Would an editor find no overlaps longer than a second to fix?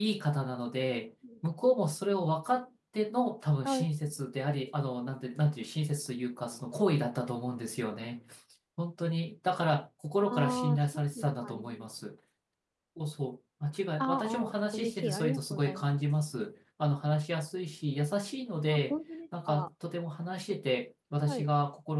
No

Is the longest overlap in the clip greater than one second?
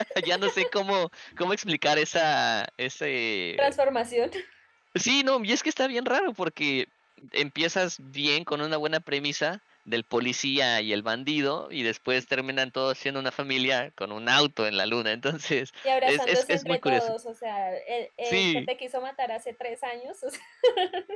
Yes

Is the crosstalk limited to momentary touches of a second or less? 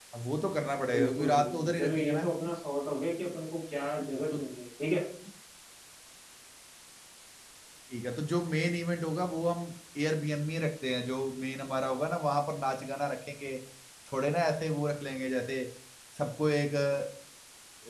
No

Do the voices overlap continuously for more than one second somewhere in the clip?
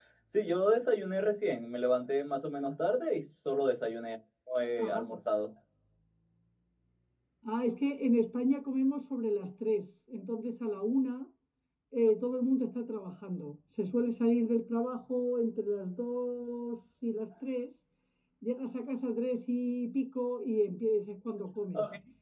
No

